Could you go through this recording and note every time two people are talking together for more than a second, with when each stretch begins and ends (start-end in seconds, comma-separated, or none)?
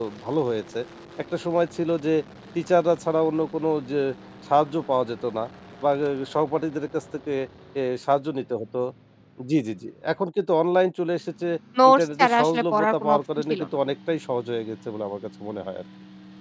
11.9-13.7